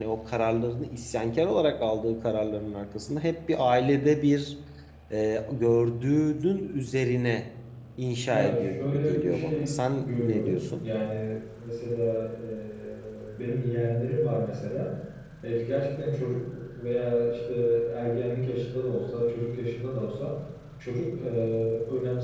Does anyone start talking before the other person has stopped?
Yes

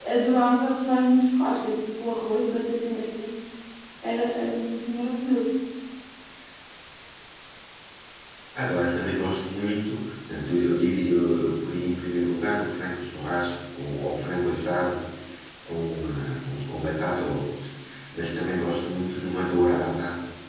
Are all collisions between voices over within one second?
Yes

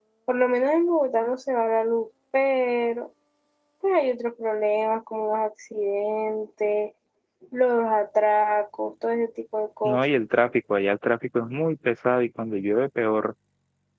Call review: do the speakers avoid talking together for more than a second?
Yes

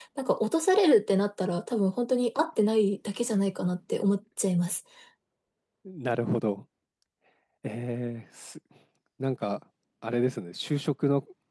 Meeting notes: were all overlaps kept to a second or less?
Yes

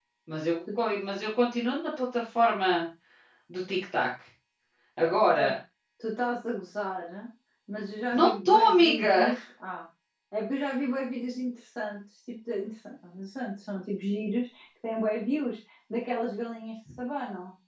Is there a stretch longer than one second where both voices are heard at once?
Yes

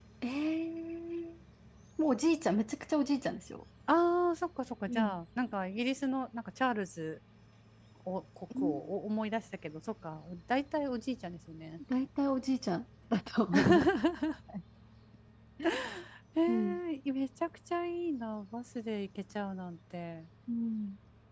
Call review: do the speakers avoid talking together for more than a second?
Yes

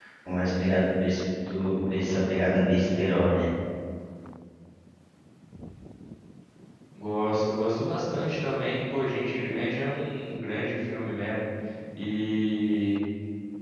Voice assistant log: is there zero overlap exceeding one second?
Yes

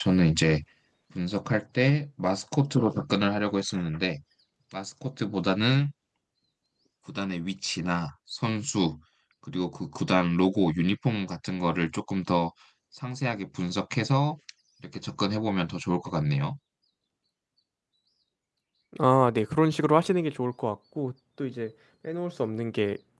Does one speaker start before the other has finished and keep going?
No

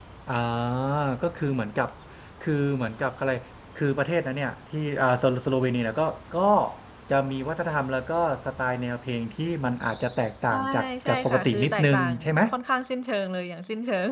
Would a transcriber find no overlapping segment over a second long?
No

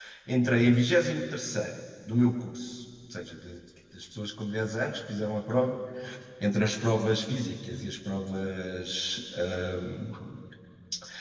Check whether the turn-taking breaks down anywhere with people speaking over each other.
No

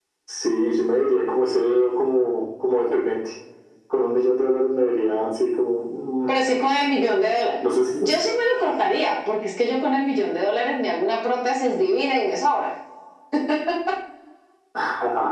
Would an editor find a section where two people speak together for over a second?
No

